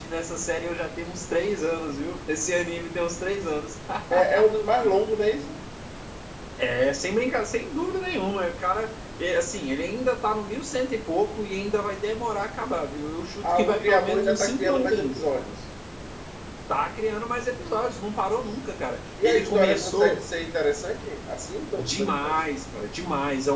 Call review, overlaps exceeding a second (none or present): present